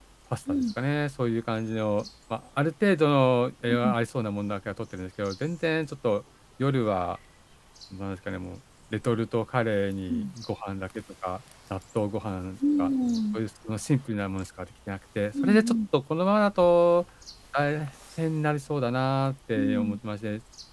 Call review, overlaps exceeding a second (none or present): none